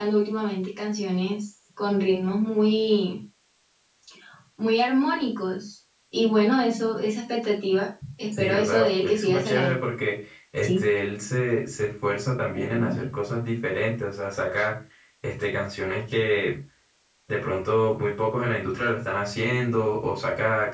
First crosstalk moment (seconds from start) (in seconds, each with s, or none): 8.3 s